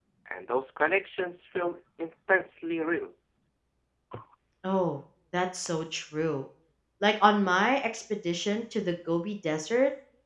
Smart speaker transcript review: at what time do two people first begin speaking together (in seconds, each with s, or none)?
none